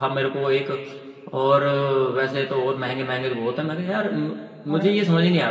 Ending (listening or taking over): listening